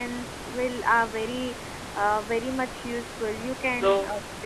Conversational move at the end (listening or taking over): taking over